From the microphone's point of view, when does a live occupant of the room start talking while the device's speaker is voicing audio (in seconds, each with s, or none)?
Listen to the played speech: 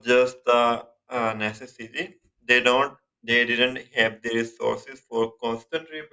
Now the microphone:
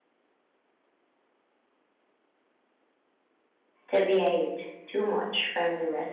3.9 s